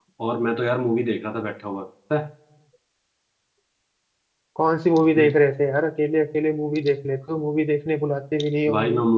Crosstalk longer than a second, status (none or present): none